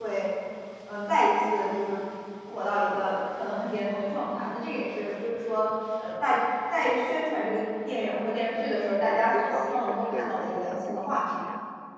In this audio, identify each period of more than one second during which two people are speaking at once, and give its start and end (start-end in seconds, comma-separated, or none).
8.6-11.4